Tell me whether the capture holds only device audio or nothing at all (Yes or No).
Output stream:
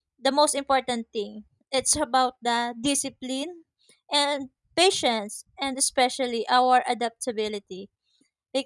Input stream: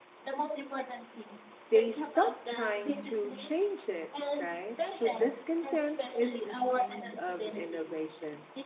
No